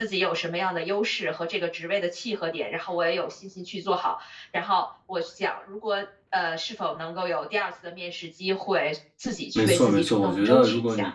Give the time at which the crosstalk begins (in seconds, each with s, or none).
9.6 s